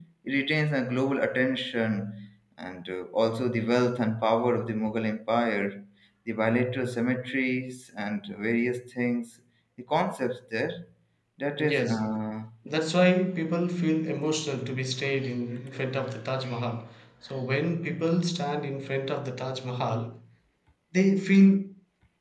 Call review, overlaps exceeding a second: none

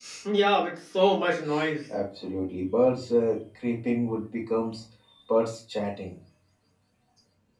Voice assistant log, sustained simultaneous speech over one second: none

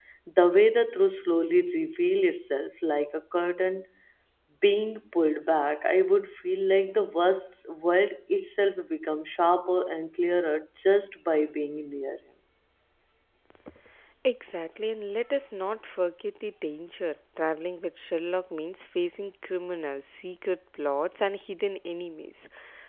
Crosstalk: none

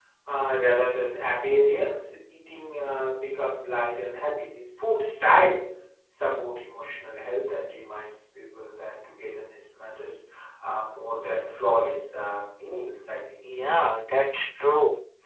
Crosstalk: none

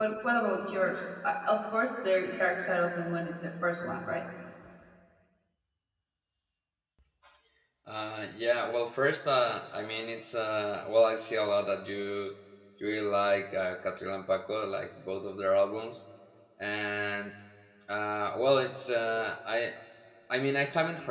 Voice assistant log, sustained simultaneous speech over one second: none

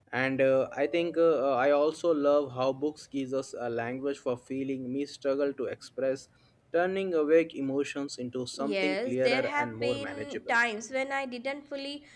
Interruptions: present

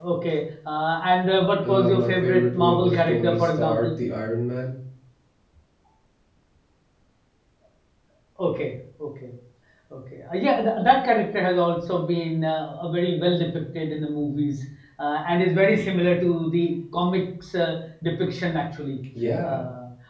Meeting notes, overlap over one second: present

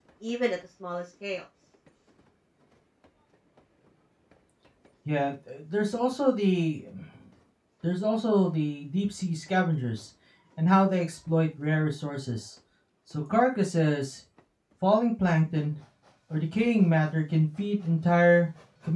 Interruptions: none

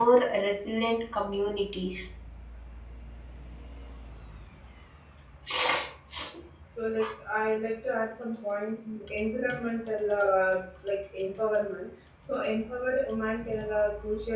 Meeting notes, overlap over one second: none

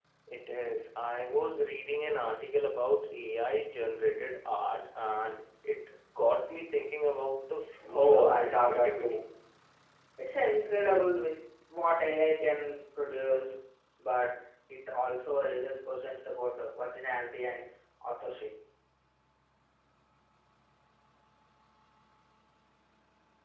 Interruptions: present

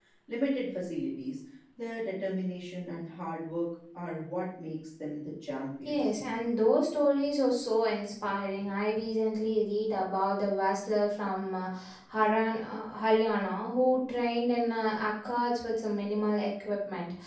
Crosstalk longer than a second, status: none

